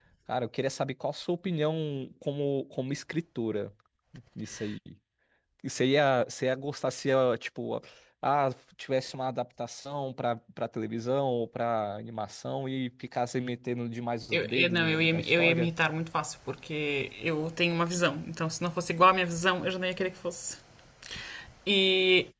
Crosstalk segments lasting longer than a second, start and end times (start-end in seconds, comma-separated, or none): 14.3-15.7